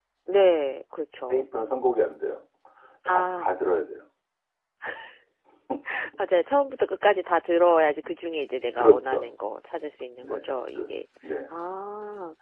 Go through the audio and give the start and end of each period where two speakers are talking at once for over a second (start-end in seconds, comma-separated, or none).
none